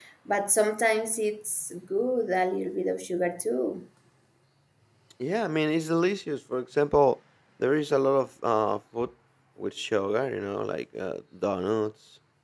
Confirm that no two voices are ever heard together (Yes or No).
Yes